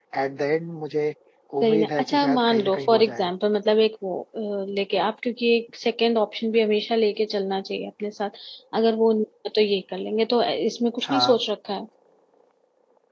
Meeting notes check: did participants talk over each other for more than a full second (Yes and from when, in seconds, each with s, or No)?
Yes, from 1.6 s